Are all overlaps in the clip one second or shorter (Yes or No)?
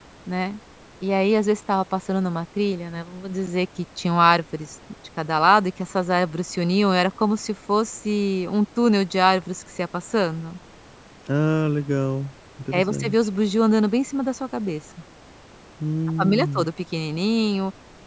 Yes